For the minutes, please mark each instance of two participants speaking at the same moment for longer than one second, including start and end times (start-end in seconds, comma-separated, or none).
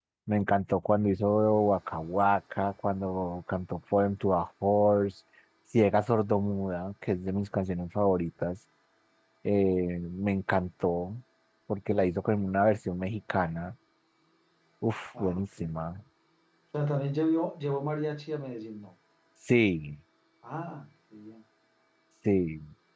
none